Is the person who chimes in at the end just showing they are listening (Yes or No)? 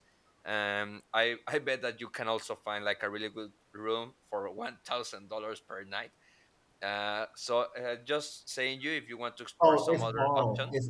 No